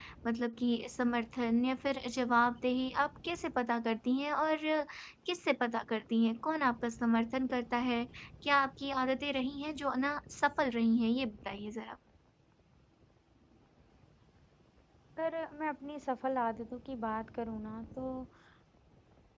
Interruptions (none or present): none